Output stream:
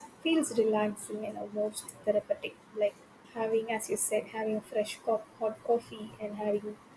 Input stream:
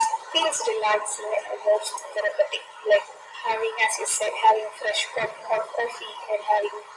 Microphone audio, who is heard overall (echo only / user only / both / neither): echo only